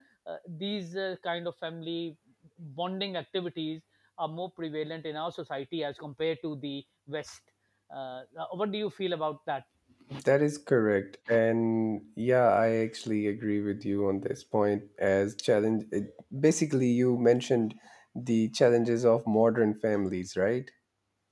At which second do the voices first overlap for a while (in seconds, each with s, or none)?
none